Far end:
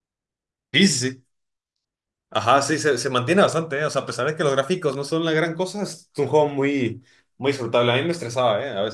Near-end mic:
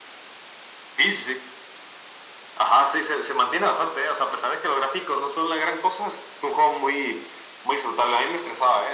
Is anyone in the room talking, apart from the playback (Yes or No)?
No